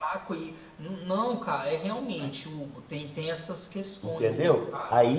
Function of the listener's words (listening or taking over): taking over